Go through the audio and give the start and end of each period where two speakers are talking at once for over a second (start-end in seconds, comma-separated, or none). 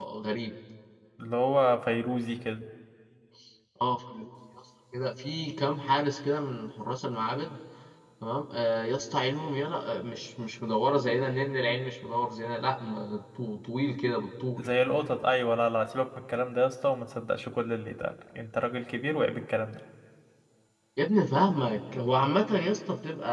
none